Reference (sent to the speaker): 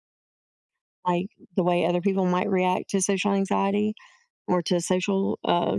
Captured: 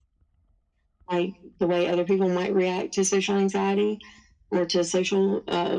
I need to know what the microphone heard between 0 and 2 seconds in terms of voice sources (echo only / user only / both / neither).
echo only